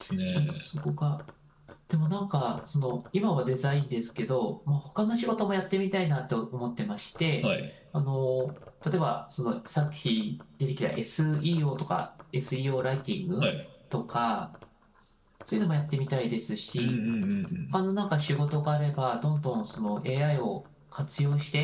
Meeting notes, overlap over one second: none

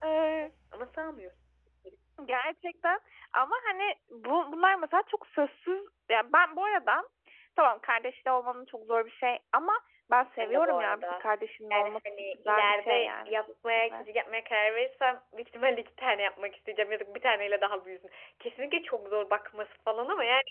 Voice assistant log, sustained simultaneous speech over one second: present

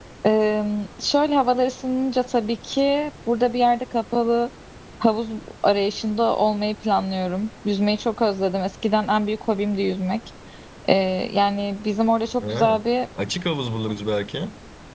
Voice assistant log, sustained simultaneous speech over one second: none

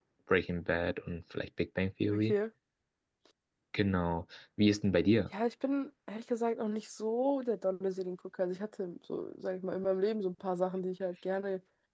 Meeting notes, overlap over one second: none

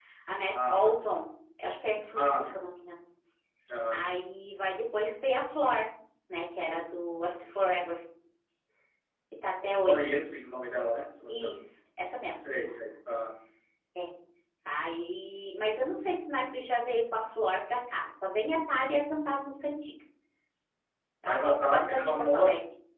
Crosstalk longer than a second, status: present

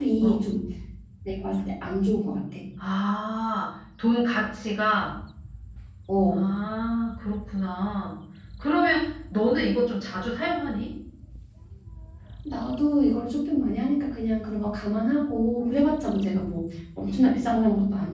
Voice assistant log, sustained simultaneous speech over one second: none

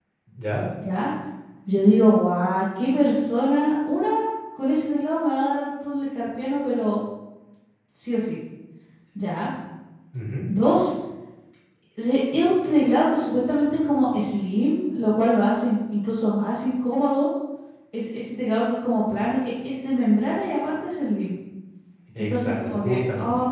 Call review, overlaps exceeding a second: present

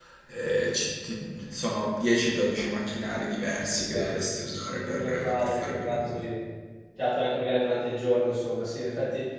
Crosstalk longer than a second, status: present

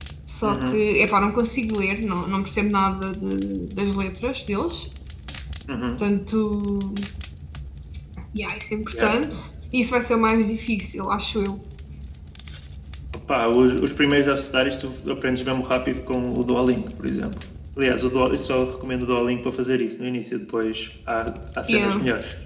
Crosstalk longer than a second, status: none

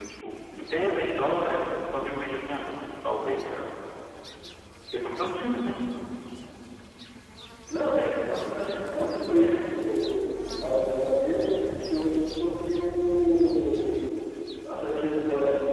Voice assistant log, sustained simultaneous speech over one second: none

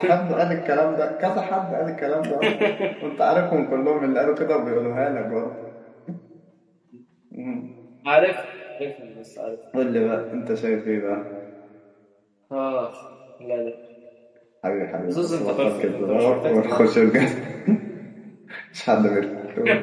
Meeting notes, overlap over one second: present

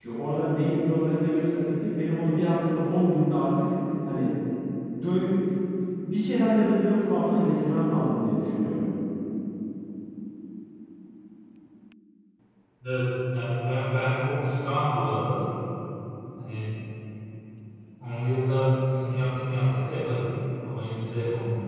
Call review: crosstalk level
none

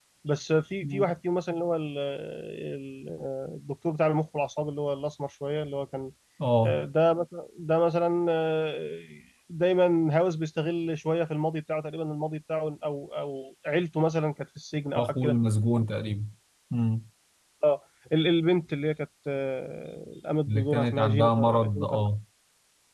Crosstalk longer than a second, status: present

